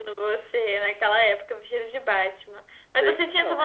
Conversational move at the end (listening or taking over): listening